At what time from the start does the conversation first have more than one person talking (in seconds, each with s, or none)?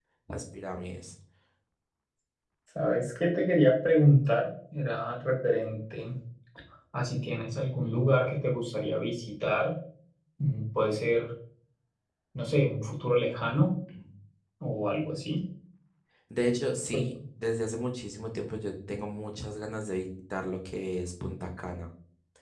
none